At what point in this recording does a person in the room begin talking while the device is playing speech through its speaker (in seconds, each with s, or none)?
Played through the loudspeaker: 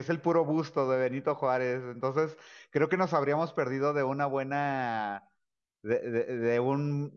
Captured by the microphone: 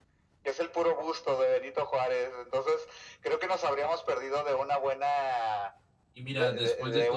6.1 s